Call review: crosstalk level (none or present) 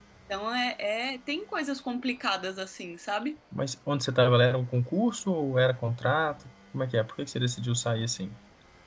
none